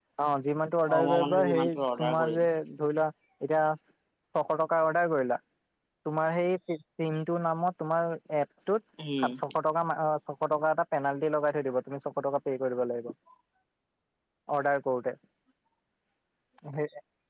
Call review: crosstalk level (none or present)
present